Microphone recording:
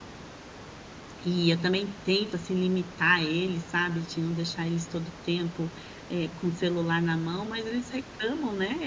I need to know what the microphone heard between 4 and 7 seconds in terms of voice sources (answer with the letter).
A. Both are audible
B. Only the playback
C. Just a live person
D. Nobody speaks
C